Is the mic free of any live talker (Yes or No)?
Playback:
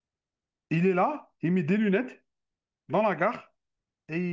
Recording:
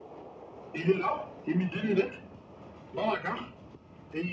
Yes